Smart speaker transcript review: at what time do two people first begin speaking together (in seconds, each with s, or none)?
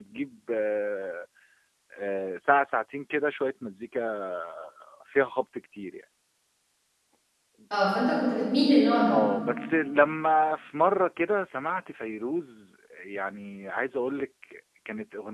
none